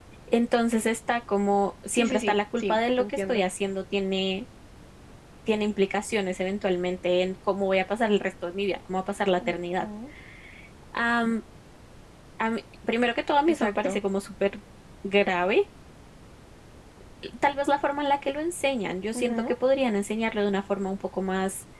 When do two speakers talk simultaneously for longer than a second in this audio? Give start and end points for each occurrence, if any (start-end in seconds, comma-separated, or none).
1.9-3.4